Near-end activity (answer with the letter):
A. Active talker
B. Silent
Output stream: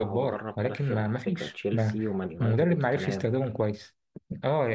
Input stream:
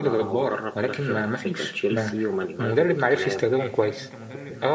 A